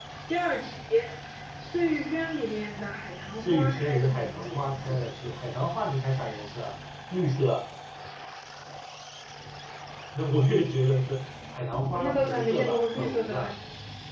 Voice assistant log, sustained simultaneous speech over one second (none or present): present